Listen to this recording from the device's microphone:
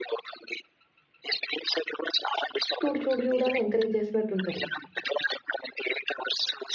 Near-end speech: present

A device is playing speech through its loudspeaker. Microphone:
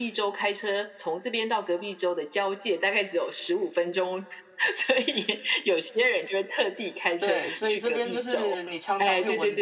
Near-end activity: present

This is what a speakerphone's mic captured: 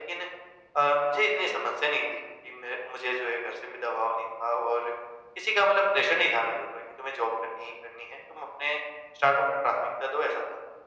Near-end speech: none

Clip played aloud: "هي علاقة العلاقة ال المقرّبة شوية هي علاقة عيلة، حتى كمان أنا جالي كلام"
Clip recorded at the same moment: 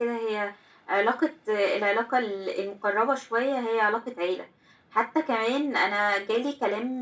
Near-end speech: none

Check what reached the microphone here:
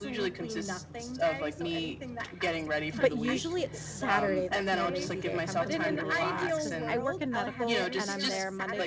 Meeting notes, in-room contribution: present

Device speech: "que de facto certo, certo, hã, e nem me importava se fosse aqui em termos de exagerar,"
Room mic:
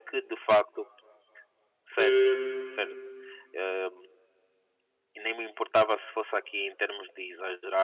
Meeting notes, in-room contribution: present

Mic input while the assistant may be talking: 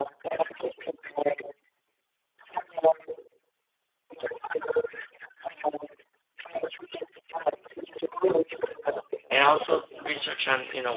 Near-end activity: present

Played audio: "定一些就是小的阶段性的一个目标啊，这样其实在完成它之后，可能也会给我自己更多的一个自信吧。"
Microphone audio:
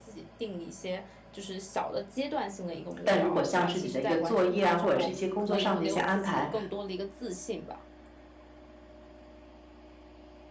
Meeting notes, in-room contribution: present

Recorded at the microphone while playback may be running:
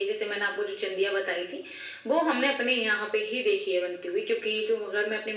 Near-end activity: none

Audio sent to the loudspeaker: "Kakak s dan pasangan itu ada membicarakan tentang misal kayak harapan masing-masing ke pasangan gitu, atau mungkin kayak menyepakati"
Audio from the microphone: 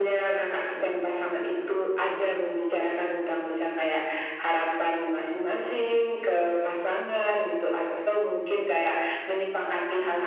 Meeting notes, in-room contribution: none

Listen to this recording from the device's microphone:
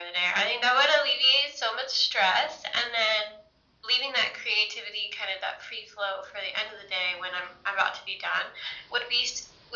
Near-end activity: none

